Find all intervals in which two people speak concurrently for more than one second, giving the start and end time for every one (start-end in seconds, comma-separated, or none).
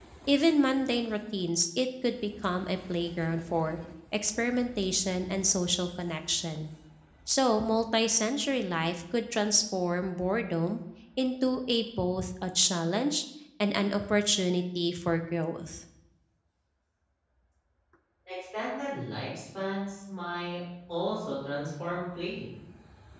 none